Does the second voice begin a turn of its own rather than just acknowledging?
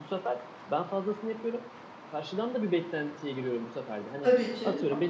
No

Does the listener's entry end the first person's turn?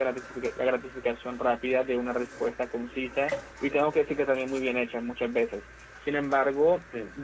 No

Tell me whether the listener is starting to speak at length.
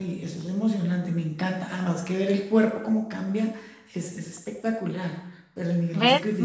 Yes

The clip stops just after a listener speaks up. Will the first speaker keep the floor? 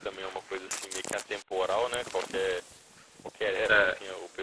Yes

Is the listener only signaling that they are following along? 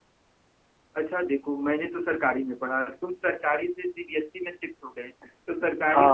Yes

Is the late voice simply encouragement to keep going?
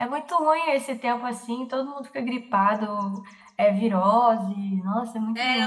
No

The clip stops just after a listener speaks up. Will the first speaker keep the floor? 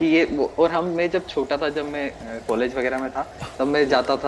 Yes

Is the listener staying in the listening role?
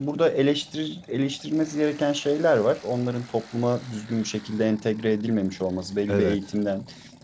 Yes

